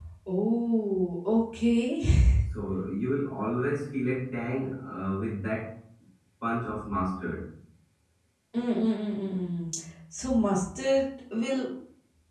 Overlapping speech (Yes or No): No